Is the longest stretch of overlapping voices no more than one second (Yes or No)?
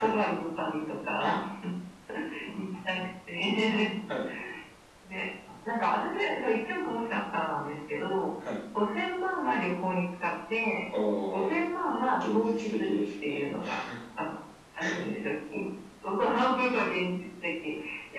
No